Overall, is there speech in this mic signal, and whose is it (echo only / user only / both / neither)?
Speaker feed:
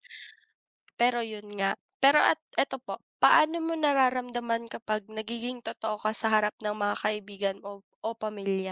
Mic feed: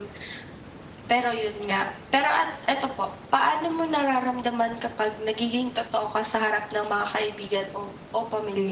echo only